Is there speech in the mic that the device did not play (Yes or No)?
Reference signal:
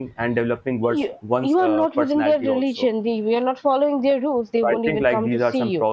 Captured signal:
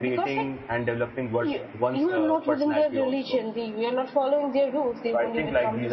No